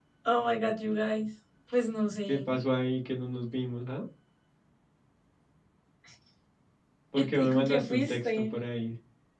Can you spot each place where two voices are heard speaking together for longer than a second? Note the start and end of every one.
7.2-8.5

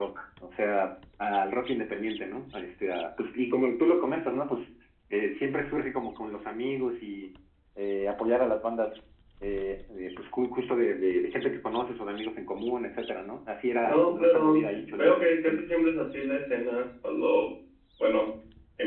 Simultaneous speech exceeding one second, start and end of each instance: 13.8-15.8

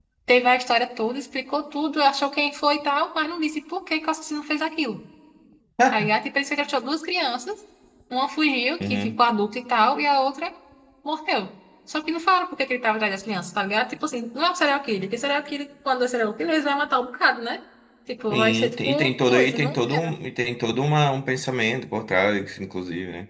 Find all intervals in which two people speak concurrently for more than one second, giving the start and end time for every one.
18.3-19.7

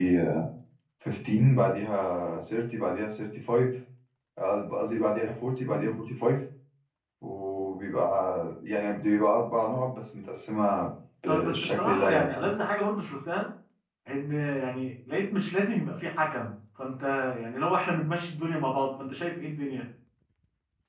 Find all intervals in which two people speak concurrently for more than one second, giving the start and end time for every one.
11.3-12.5

